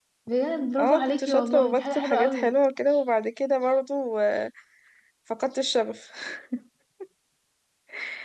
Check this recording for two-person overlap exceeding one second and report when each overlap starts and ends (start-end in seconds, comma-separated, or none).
0.8-2.6